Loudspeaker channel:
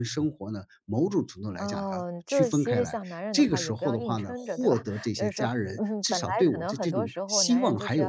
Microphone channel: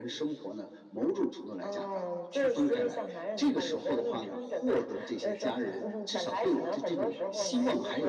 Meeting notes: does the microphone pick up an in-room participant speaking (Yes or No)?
No